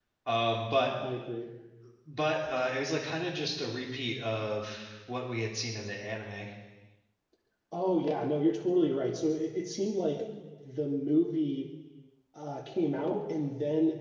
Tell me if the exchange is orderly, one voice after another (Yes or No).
Yes